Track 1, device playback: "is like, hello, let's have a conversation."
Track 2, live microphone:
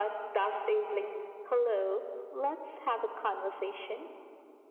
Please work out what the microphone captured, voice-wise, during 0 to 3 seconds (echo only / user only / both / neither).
echo only